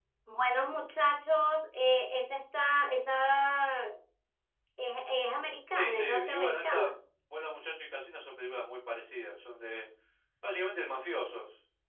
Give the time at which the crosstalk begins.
6 s

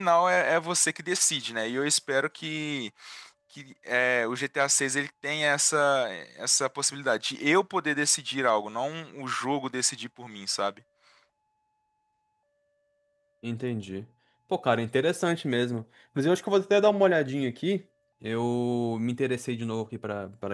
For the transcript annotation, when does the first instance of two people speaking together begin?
none

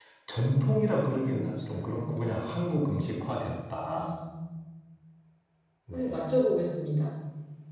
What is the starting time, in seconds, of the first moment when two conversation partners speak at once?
1 s

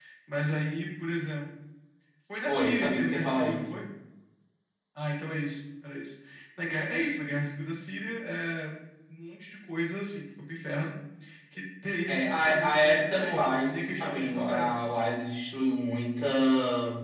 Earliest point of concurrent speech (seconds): 2 s

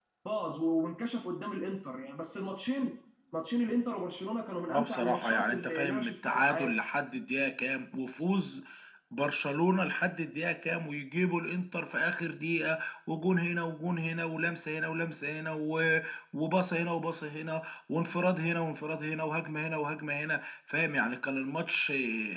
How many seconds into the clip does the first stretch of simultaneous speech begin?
5 s

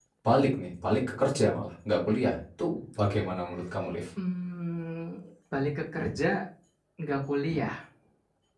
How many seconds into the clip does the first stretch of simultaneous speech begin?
none

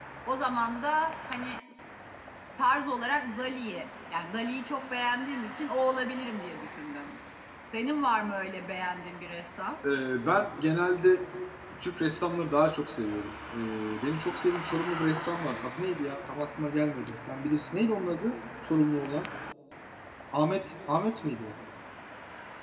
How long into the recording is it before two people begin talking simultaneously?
none

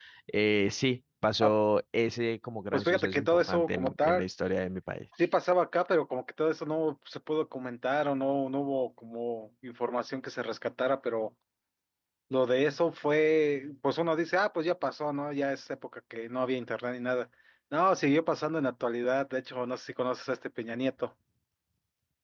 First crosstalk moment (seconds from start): 3 s

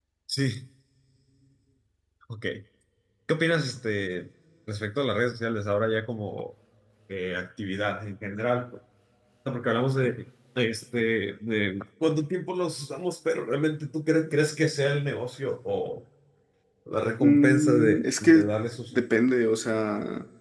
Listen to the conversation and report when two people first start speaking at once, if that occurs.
17 s

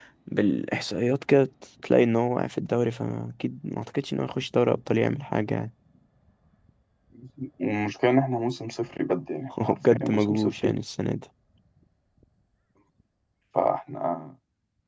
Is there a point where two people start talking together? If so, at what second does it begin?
10 s

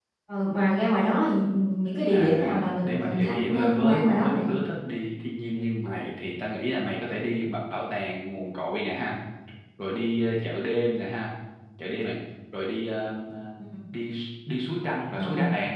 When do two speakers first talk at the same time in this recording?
2 s

